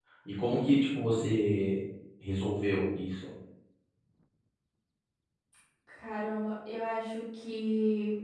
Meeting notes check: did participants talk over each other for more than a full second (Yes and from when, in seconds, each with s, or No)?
No